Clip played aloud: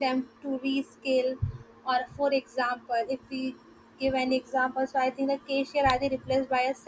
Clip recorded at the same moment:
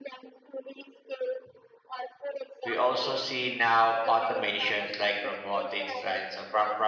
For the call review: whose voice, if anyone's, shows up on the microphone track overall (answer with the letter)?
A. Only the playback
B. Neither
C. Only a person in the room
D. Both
D